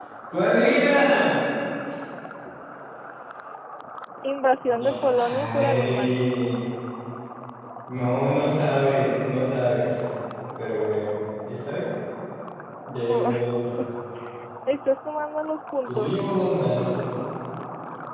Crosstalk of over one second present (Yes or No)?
Yes